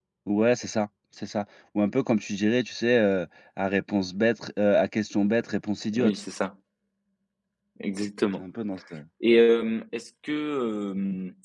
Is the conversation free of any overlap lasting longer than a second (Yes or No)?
Yes